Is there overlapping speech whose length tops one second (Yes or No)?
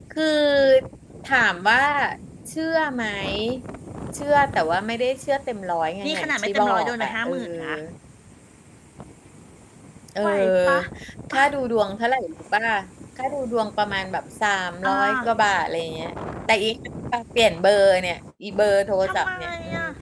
Yes